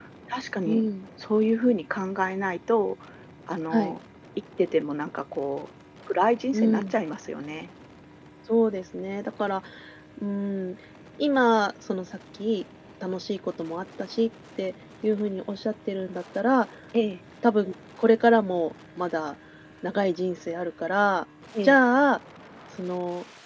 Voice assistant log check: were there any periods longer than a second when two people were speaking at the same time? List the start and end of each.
none

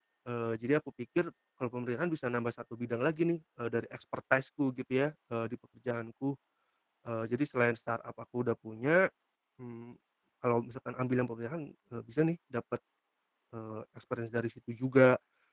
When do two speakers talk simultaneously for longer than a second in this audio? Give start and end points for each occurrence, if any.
none

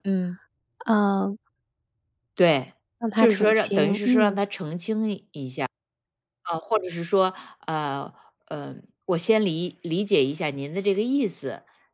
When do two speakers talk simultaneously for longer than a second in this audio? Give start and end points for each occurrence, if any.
3.2-4.4

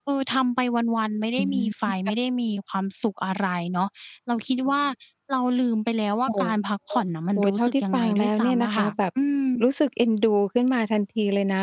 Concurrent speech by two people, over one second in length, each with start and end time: 7.4-8.9

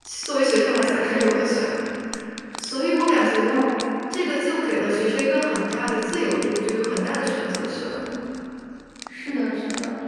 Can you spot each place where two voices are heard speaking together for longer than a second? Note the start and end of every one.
none

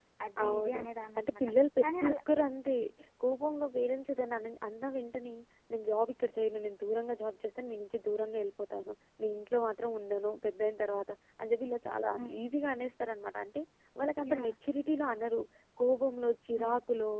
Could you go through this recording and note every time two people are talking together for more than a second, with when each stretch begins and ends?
none

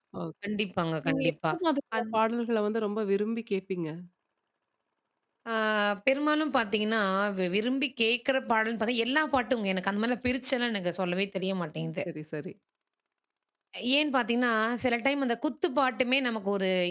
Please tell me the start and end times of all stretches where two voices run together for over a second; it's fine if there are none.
none

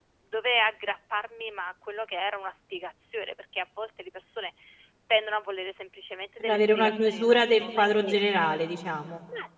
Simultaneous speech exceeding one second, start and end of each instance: 6.4-8.2

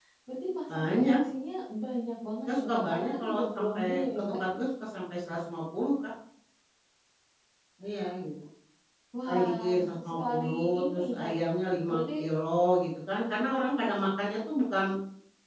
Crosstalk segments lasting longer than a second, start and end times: 2.5-4.3, 9.2-11.3

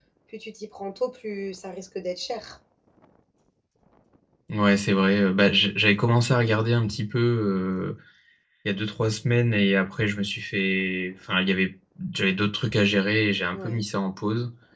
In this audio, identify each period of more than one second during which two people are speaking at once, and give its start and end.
none

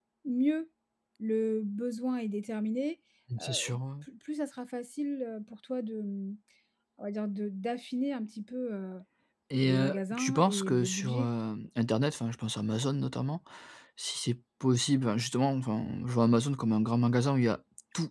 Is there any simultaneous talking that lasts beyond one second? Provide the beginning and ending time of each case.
9.6-11.3

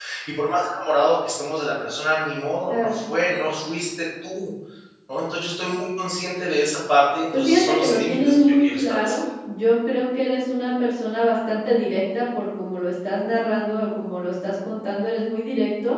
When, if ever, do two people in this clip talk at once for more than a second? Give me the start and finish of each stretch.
7.3-9.2

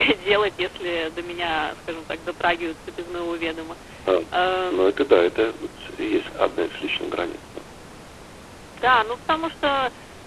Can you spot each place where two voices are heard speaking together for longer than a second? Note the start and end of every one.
none

